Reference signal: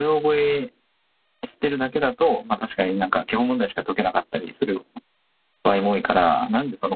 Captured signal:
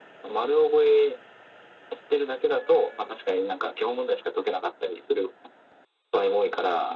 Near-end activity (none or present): none